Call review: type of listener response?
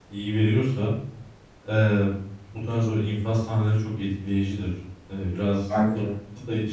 listening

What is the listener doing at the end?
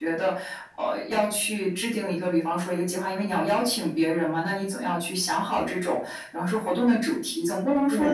listening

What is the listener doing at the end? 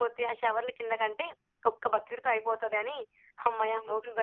taking over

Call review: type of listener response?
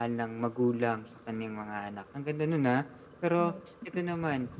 listening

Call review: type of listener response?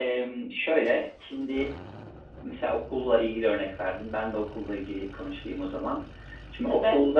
listening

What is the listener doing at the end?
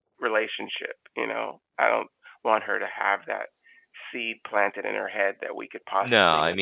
taking over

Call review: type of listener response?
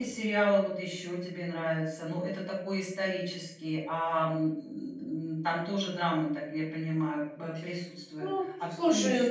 taking over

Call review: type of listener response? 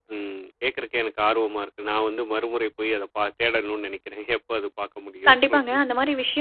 taking over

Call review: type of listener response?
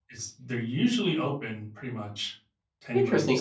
taking over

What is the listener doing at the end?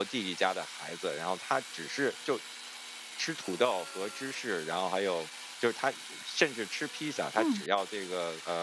listening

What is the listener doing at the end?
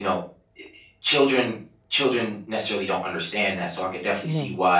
listening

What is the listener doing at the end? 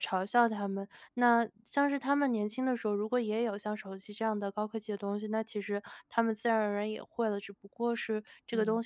listening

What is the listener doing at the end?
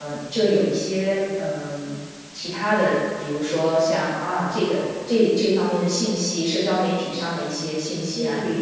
listening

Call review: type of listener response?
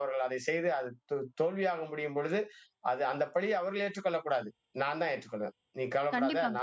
listening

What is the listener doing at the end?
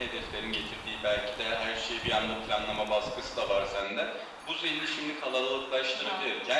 listening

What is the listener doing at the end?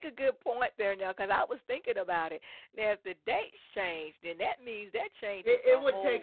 taking over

